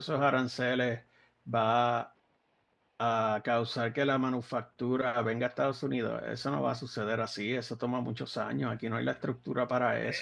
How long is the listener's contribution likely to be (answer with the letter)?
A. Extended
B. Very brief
A